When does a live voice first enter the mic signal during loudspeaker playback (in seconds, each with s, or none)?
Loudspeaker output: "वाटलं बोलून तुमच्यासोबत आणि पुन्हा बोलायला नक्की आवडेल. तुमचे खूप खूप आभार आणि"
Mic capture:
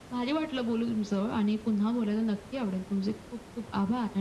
none